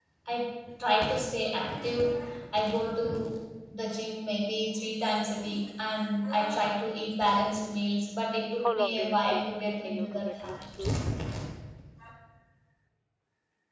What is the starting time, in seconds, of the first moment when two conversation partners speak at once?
8.6 s

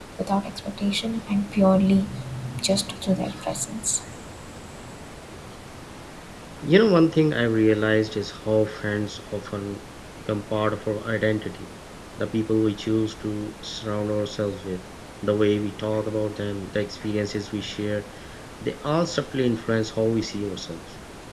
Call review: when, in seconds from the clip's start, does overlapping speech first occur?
none

